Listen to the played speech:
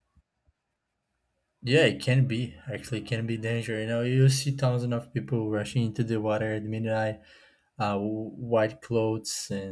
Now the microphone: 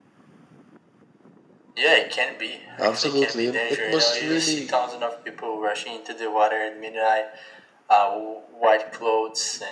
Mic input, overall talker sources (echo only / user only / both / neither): both